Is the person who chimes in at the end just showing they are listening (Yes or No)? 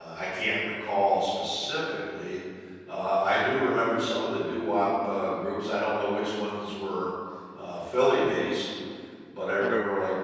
Yes